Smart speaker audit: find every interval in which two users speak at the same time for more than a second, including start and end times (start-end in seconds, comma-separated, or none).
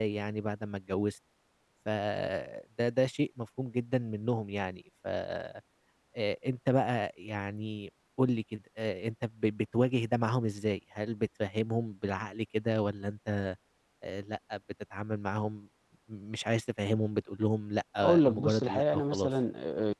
18.0-19.3